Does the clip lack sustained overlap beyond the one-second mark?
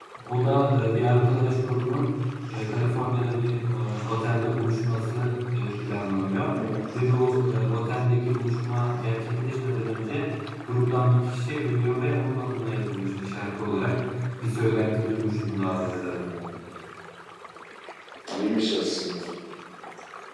Yes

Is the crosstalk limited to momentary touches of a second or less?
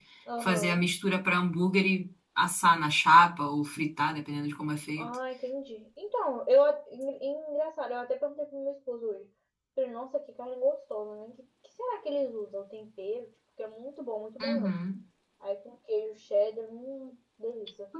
Yes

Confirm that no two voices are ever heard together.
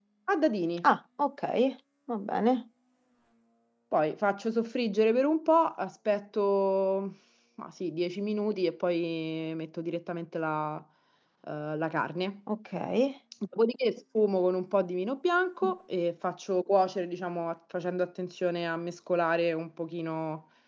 Yes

